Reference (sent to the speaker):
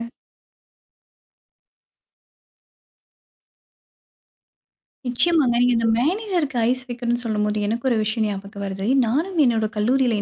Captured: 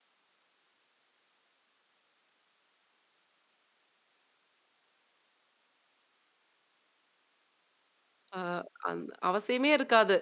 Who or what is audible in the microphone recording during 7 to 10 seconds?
user only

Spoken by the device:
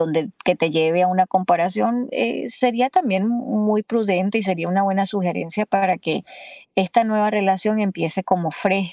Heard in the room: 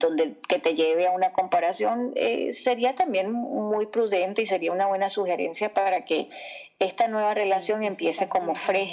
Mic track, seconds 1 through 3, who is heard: echo only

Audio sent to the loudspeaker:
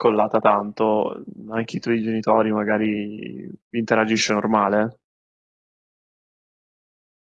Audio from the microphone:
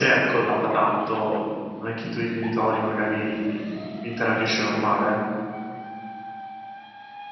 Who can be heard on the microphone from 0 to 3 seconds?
echo only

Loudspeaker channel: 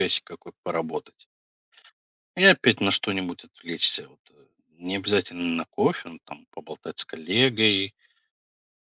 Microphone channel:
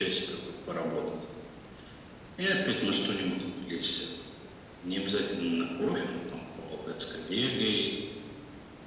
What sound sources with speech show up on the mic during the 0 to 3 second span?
echo only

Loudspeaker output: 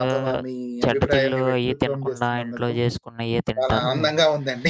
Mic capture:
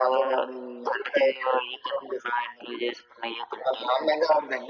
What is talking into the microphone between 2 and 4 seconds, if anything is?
echo only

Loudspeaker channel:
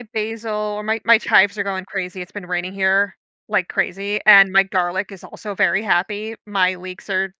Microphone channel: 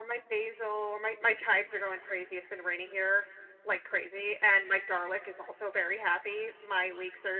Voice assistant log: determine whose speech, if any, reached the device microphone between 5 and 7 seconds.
echo only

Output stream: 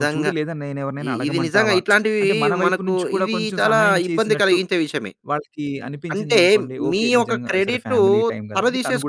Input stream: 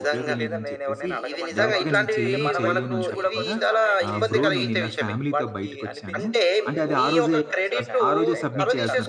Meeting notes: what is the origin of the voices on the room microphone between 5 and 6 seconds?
both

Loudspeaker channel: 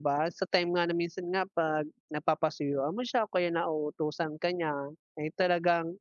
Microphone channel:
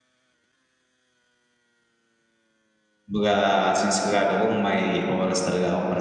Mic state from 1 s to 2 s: neither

